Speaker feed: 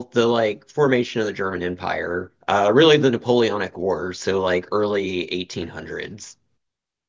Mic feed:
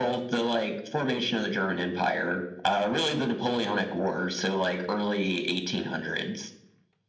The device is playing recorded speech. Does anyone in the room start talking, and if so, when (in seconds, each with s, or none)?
none